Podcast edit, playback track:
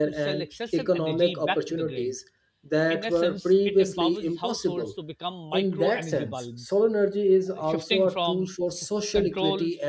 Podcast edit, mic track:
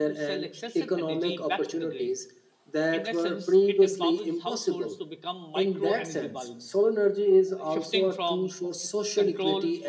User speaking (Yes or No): No